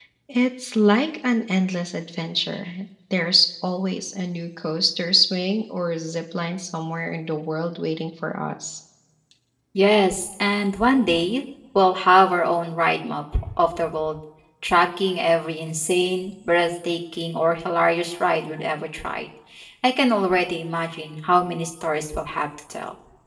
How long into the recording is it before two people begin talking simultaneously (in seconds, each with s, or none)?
none